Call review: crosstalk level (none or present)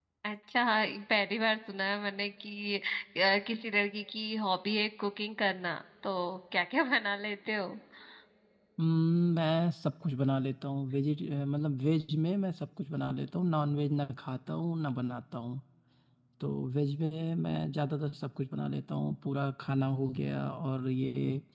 none